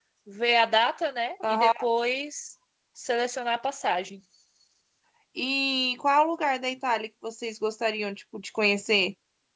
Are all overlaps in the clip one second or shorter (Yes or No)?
Yes